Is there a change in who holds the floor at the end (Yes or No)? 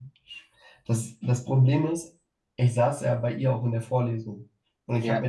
No